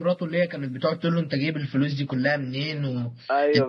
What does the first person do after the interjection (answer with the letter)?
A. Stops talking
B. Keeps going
A